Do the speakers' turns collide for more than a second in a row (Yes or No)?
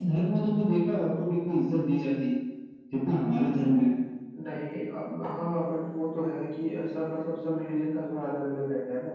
No